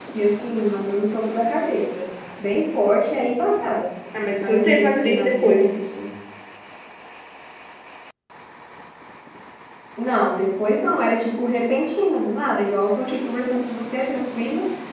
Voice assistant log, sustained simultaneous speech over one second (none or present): present